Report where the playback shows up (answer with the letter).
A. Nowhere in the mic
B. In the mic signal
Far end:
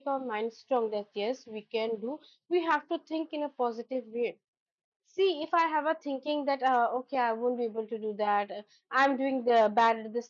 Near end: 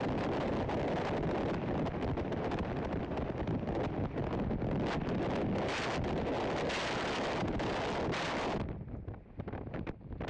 A